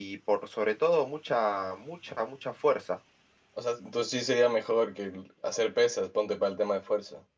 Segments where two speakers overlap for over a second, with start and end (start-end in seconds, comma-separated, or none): none